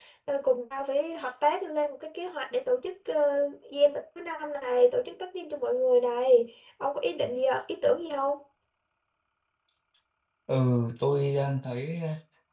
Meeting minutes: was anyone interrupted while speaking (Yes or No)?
No